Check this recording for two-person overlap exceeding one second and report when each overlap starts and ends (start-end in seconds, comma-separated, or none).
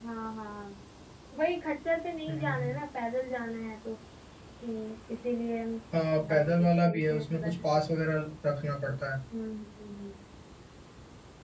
6.2-7.5